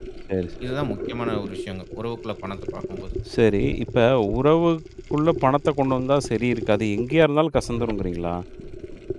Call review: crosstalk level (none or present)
none